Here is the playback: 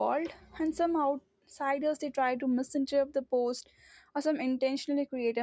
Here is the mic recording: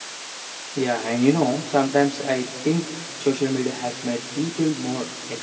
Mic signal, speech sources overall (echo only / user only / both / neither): user only